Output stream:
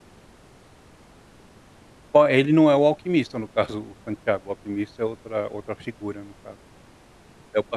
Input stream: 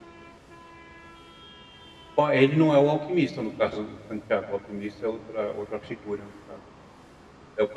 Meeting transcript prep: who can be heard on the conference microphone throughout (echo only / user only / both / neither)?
echo only